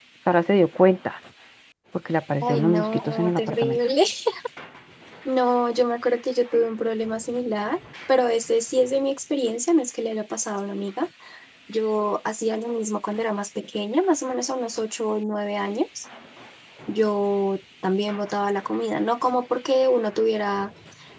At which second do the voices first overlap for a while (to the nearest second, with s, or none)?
2 s